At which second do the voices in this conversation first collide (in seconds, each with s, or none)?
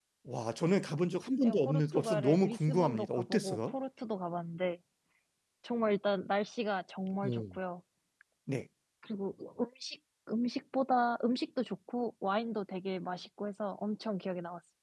1.4 s